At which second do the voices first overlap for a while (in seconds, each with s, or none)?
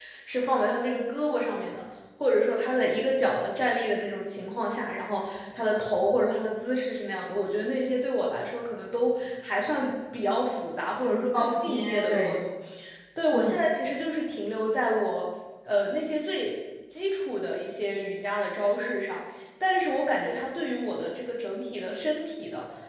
11.0 s